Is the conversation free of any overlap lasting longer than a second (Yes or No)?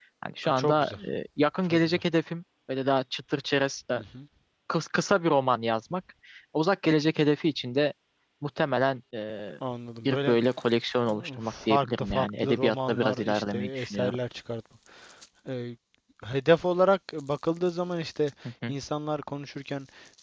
No